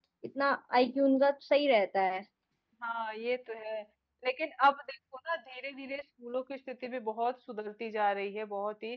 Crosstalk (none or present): none